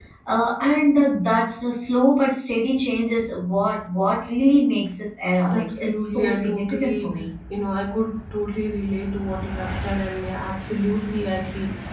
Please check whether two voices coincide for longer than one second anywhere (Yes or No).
Yes